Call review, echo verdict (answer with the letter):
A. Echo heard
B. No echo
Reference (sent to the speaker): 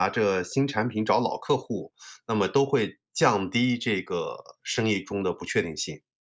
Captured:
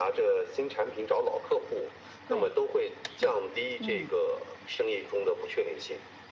A